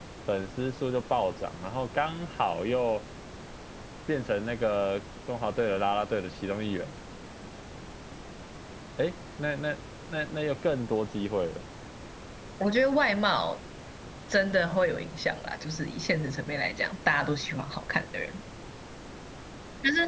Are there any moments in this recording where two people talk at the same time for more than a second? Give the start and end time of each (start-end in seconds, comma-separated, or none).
none